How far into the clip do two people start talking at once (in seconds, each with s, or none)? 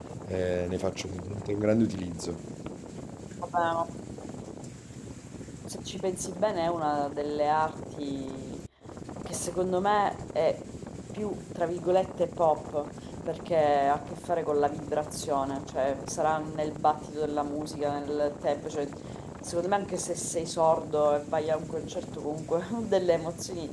none